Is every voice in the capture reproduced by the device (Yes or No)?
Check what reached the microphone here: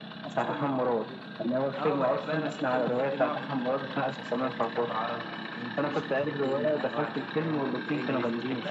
No